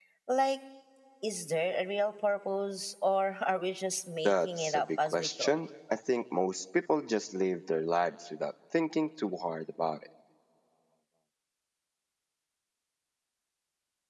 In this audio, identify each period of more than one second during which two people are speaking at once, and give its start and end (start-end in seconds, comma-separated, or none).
4.2-5.6